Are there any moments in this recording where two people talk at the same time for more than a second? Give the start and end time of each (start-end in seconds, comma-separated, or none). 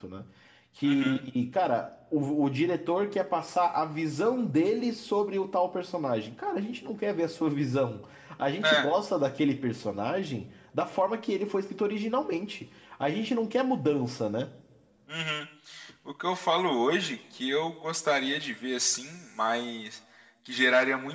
none